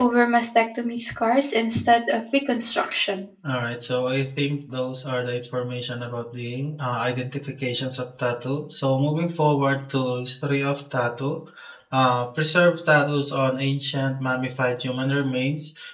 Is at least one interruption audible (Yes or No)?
No